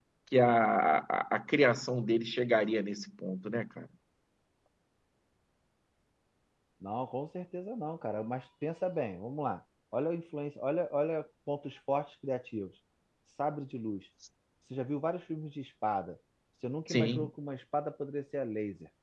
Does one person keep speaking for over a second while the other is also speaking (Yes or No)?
No